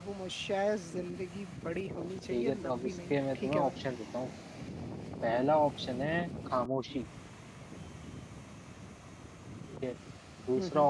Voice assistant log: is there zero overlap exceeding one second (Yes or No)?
No